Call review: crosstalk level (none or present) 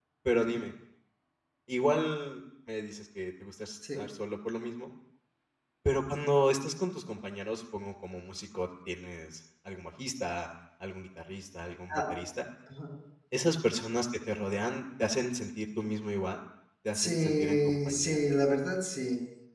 present